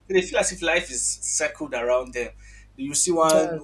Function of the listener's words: listening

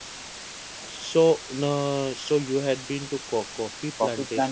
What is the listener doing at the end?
taking over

